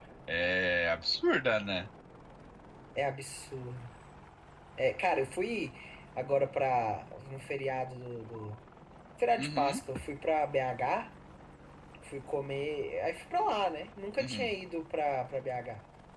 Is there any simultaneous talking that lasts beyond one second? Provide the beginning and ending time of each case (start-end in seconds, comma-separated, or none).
none